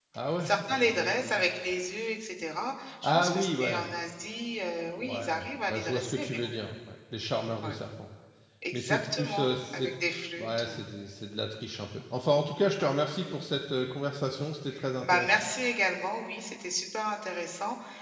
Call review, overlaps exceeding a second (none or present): present